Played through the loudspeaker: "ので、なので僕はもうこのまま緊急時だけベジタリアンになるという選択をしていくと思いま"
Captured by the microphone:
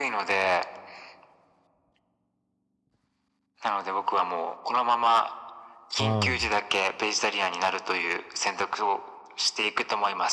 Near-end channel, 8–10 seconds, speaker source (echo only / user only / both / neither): echo only